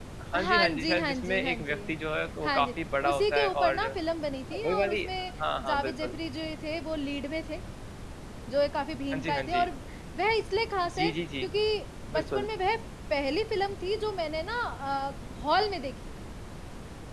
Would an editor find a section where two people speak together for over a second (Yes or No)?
Yes